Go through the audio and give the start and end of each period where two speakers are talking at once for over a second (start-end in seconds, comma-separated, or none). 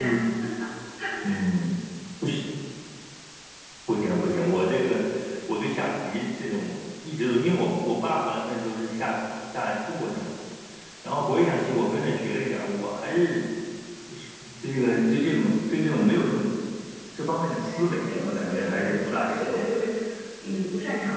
17.6-19.7